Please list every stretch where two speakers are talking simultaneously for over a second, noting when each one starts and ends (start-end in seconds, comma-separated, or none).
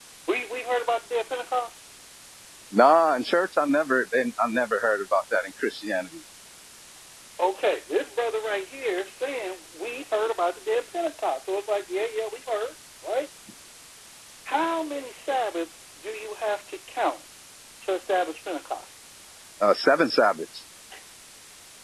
none